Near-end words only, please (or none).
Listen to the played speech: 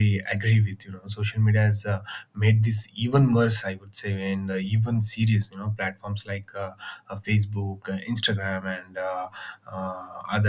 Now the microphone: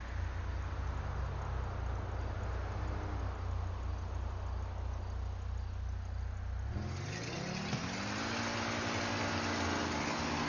none